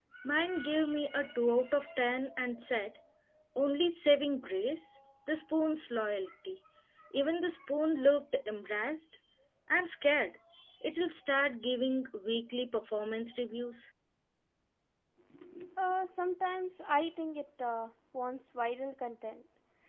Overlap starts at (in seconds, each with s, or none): none